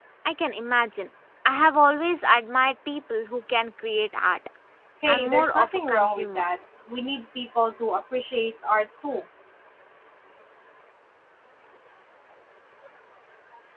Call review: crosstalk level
present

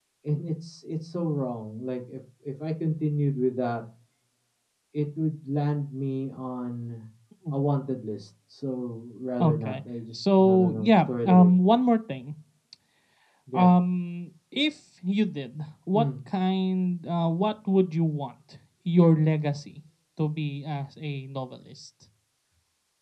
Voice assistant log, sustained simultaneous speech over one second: present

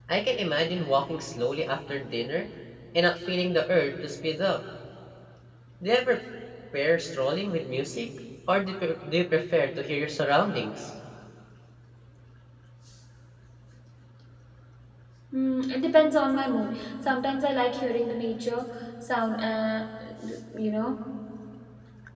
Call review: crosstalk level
none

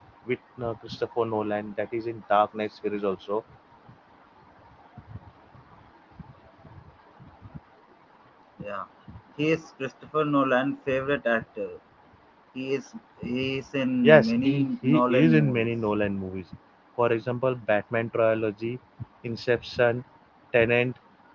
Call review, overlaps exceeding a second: present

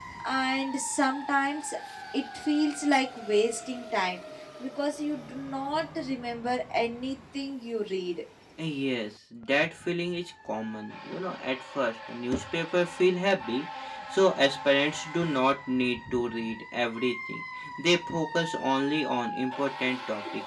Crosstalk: none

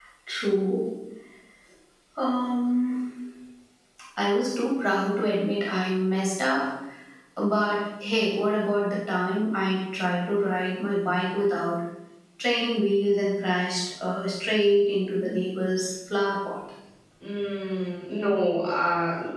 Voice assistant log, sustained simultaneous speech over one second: none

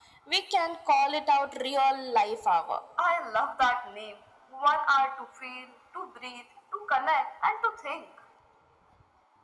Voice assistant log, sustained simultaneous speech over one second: none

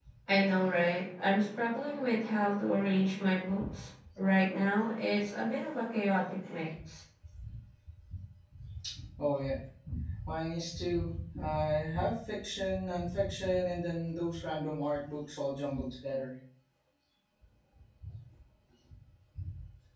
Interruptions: none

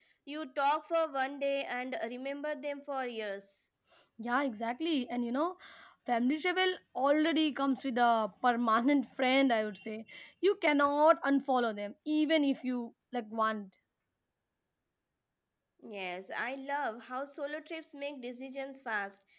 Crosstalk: none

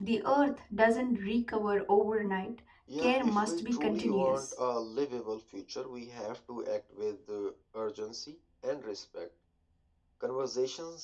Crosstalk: present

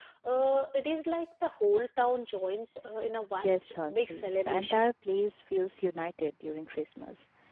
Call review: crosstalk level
present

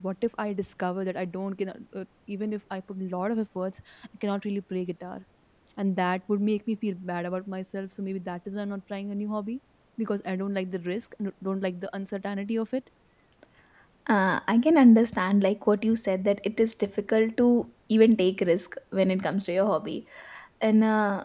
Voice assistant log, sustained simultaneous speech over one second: none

